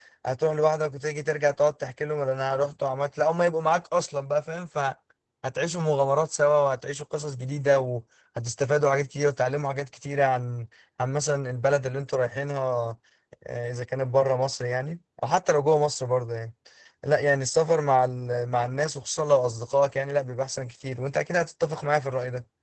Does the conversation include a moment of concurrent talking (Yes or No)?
No